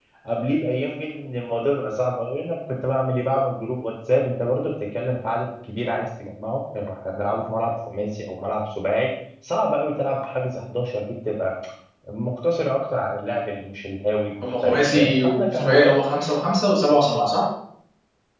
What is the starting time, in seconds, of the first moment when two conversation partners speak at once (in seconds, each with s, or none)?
14.4 s